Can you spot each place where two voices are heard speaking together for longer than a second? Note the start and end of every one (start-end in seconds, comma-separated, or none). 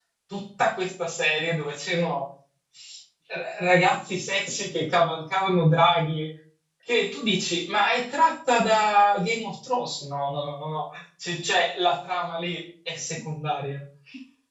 none